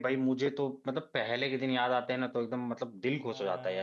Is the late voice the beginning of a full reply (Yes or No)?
Yes